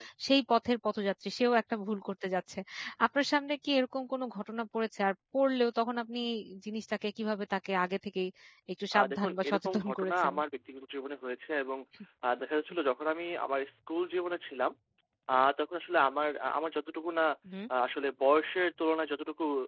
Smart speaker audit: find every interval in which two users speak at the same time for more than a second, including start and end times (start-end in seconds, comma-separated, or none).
8.9-10.3